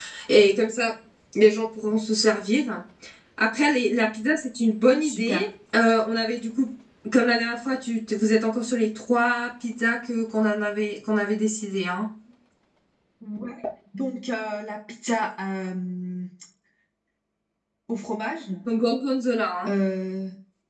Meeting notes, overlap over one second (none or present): none